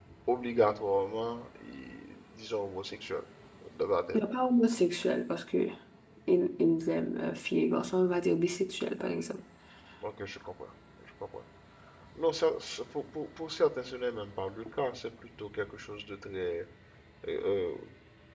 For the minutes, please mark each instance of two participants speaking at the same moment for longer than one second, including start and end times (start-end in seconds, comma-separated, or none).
none